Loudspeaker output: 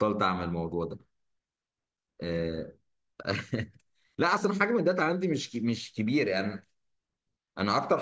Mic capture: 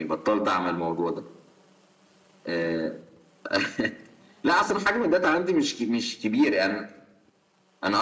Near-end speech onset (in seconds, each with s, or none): none